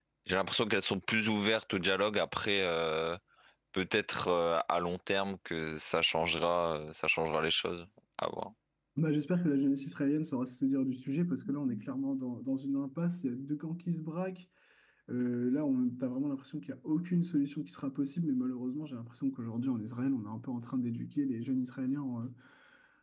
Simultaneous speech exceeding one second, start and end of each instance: none

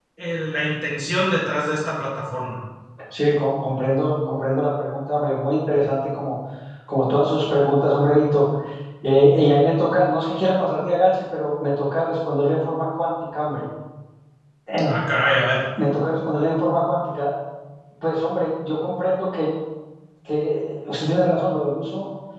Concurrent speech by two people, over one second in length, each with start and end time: none

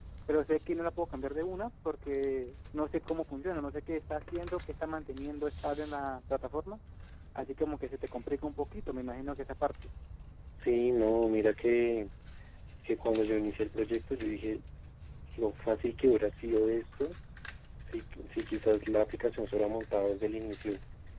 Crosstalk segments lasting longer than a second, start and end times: none

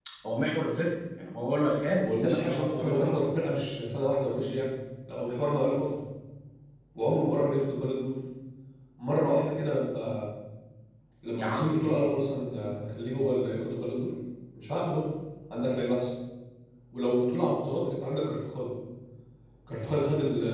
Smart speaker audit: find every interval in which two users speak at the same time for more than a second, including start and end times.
2.0-3.2

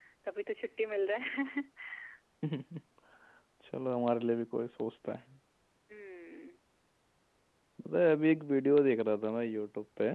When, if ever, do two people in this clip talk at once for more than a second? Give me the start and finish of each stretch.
none

